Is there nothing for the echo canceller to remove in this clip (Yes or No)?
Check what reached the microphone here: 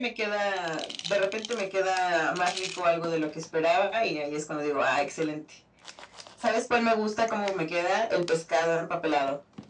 No